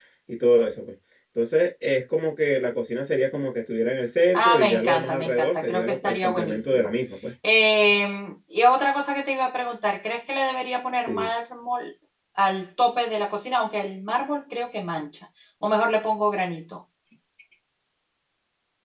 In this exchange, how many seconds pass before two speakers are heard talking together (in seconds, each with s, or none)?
4.3 s